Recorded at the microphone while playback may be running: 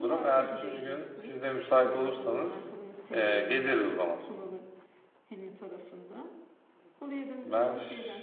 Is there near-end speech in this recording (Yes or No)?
Yes